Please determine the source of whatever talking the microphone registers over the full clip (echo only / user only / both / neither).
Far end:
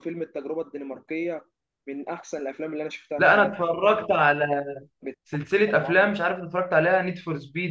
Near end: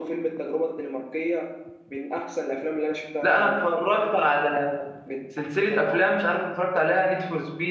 echo only